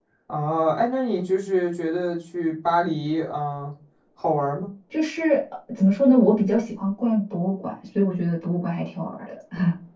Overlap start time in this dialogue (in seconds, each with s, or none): none